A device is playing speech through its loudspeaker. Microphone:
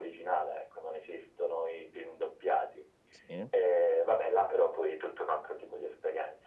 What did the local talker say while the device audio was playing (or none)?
Sì,